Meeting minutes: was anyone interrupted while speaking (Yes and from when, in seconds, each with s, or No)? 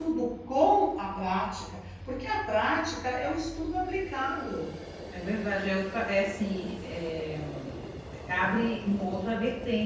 No